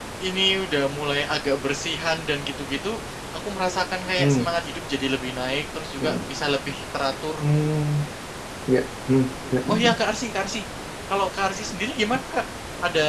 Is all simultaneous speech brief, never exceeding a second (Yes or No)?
Yes